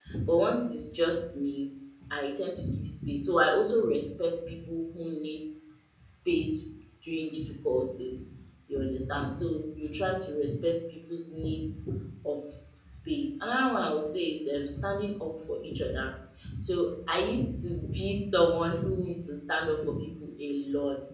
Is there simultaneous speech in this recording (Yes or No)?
No